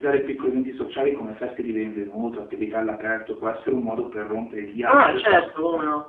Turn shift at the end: Yes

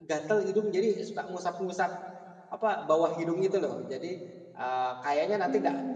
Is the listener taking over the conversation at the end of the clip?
No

